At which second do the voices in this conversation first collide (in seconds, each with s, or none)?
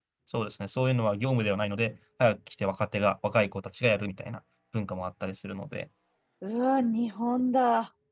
none